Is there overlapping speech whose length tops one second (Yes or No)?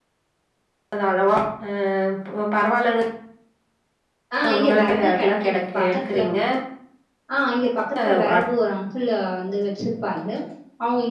Yes